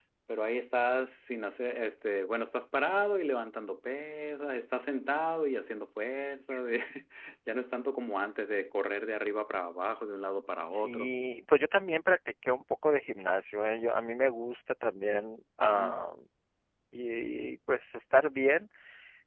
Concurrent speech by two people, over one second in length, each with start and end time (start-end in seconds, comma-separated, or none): none